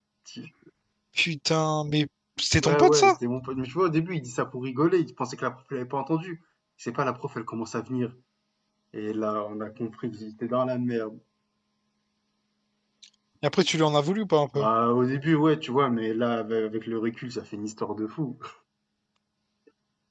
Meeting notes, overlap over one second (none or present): none